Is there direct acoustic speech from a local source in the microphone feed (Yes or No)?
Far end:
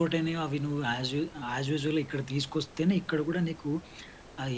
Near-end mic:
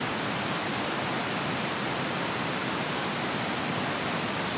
No